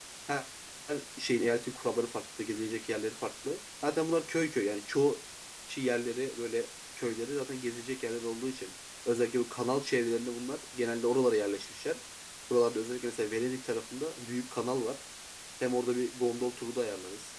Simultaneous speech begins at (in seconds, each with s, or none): none